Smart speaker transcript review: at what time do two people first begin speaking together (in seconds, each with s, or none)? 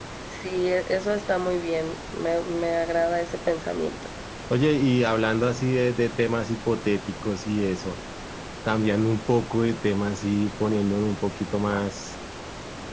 none